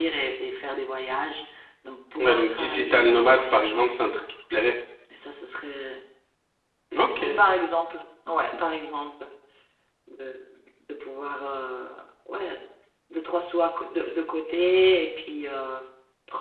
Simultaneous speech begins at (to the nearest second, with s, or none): 2 s